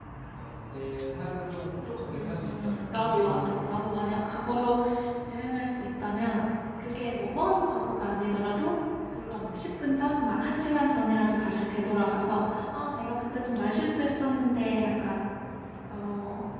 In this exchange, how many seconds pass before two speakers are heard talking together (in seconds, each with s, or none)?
2.1 s